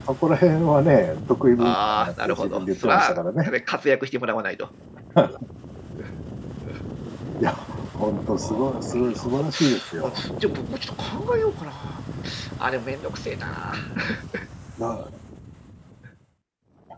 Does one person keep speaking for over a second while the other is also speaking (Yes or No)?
Yes